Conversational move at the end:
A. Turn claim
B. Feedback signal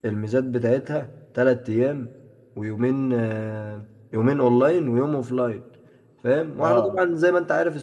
B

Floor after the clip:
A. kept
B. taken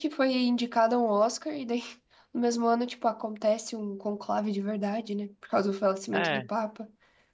A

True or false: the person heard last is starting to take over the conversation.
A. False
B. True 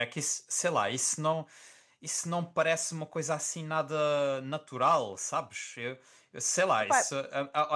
A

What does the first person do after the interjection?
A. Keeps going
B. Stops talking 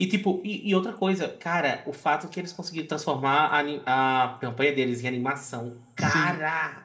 B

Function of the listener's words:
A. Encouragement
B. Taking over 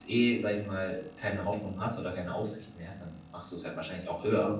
B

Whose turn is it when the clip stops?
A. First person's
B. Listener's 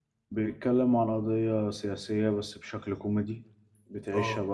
A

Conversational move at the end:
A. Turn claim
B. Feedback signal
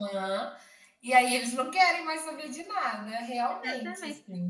A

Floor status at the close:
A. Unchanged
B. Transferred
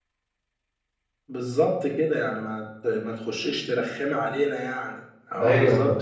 B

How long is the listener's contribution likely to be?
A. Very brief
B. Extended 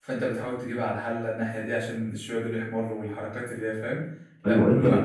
B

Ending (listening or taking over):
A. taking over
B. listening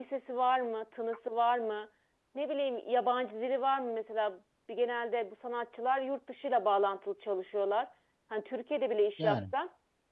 B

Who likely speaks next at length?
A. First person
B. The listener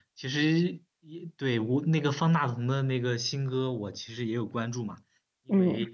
A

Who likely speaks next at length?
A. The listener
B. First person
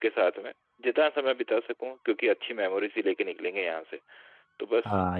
A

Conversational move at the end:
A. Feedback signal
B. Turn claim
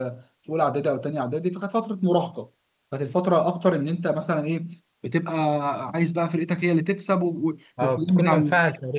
B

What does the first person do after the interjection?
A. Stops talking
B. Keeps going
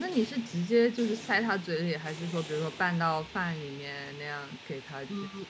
A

